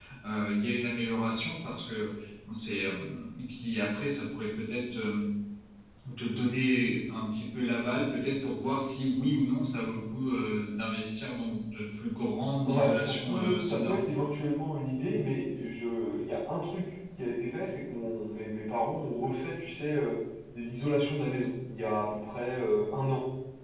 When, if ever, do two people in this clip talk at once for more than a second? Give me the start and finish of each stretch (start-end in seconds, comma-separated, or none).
12.7-13.9